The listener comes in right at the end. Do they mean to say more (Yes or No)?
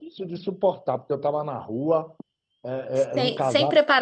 Yes